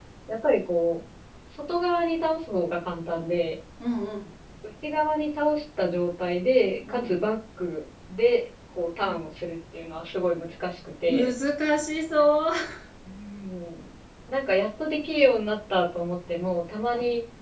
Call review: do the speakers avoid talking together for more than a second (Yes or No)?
Yes